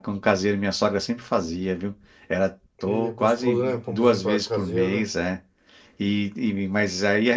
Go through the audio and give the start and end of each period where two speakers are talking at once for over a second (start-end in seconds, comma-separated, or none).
2.8-5.0